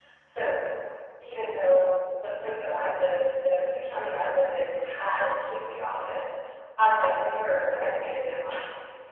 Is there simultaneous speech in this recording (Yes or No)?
No